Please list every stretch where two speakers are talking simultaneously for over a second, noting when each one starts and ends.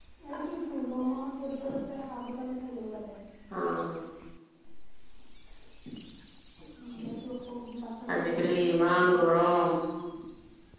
8.1-9.4

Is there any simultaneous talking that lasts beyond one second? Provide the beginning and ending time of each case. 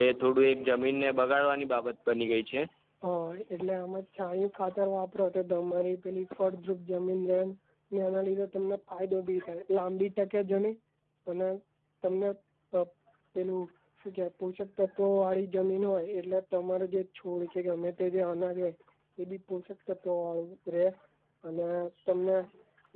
none

